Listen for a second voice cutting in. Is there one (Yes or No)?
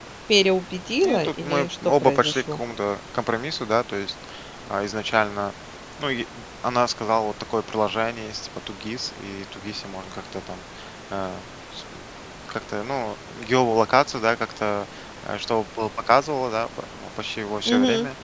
Yes